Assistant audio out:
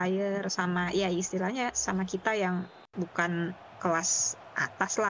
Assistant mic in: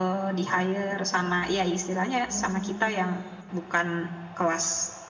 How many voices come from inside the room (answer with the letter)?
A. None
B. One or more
B